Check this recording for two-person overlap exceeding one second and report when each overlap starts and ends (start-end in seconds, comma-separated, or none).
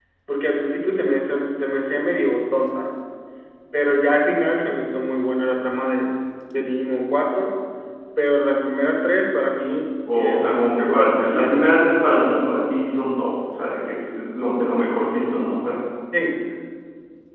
10.2-11.6